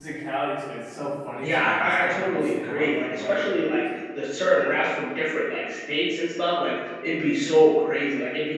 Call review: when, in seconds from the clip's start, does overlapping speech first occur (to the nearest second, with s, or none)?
1 s